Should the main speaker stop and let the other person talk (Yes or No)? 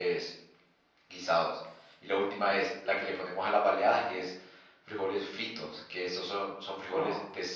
No